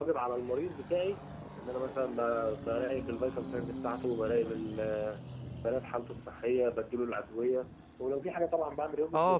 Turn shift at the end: Yes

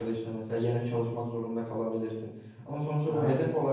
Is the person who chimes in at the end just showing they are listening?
Yes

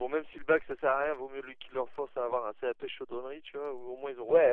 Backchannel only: No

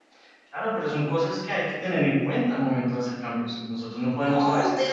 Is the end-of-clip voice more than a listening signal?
Yes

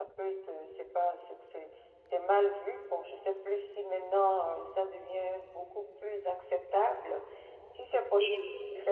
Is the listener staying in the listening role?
Yes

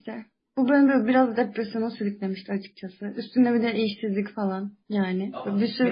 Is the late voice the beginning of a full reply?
No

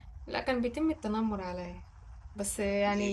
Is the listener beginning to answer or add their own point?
No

